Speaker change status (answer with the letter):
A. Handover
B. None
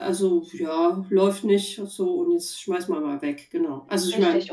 A